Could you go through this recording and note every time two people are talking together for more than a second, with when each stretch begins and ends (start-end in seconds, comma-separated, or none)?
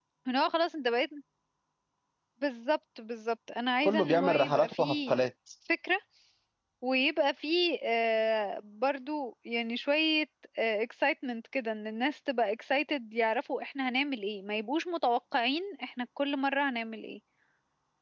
3.8-5.2